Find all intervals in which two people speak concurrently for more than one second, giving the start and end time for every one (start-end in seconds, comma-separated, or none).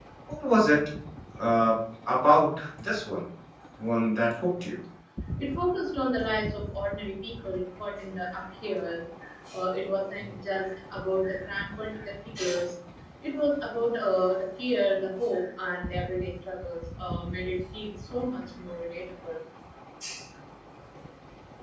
none